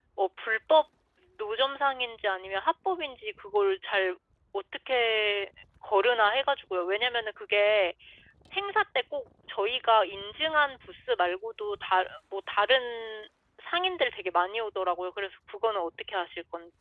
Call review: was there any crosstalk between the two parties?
No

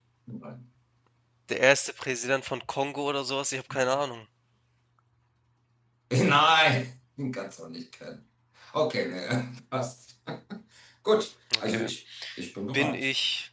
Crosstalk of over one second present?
No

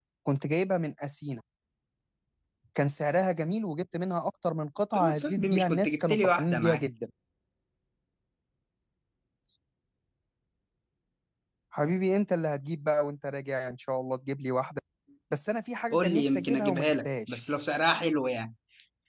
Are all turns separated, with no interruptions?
No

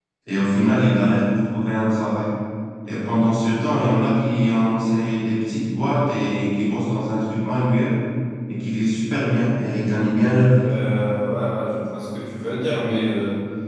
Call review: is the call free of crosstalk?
Yes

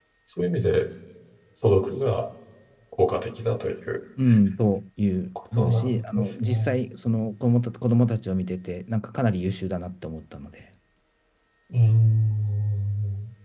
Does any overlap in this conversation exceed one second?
Yes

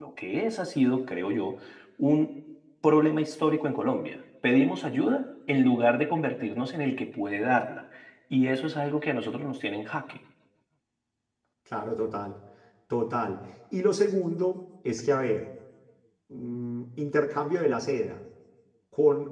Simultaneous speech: No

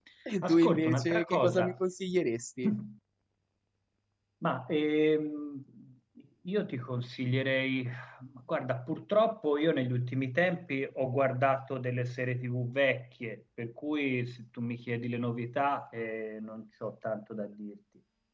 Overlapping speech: Yes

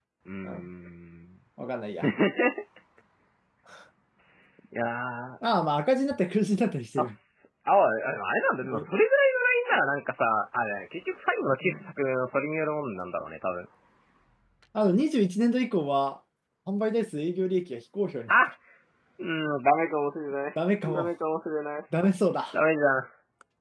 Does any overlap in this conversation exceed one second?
No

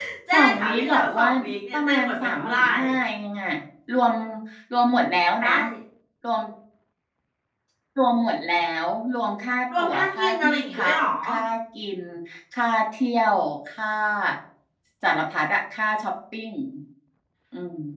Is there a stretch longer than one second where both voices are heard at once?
Yes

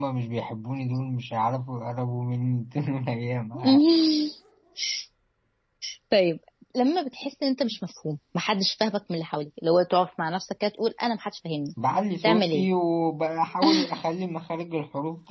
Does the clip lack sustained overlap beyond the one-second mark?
Yes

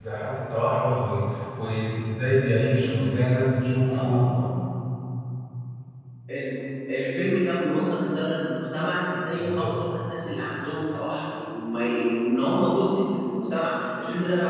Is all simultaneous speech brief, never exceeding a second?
Yes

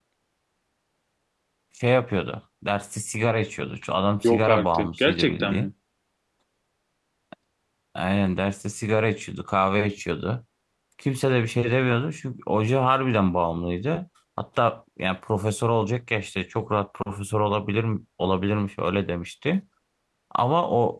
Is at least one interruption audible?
Yes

